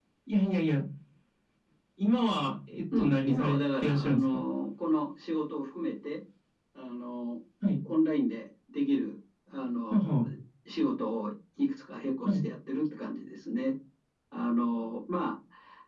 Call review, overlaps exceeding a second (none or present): present